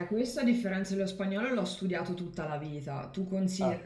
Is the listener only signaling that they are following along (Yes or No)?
Yes